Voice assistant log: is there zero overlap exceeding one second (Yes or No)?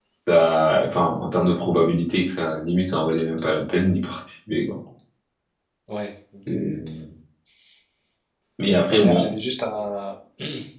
Yes